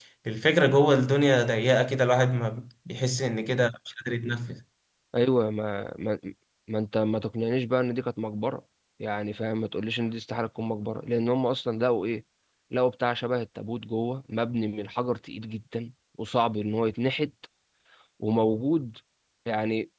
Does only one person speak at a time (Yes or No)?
Yes